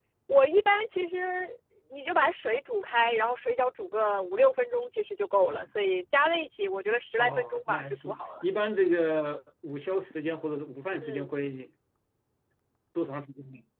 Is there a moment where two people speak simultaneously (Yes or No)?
Yes